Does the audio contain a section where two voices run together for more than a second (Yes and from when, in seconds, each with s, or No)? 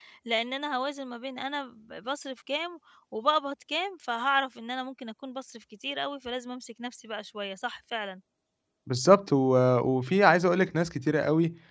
No